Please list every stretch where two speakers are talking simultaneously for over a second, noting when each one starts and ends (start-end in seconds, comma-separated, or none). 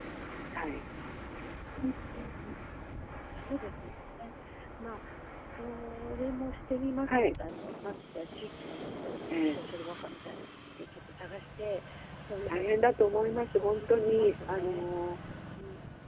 13.1-14.9